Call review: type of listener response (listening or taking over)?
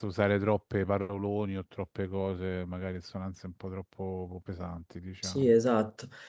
taking over